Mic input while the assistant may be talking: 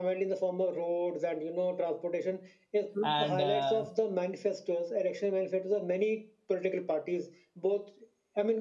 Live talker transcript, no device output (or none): and uh,